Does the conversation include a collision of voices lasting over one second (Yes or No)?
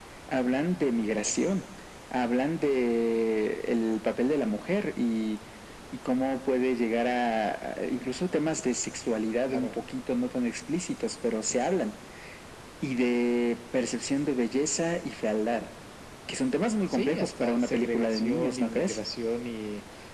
Yes